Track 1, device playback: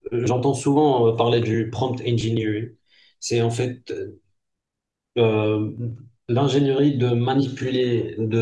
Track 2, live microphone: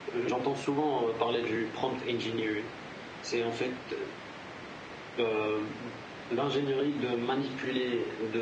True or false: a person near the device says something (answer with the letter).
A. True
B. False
B